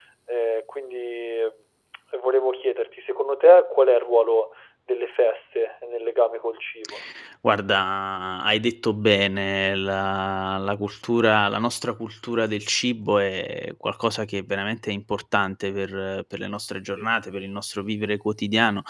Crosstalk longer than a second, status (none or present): none